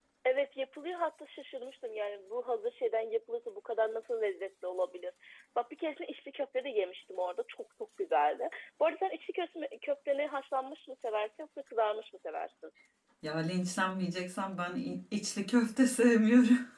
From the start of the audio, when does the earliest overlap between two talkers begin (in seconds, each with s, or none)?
none